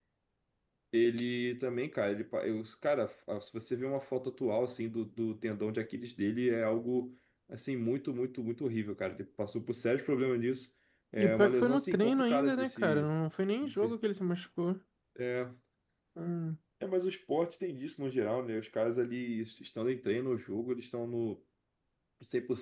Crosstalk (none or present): present